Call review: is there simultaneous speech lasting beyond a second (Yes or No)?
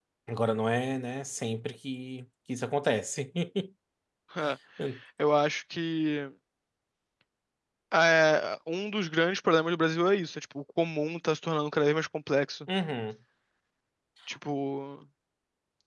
No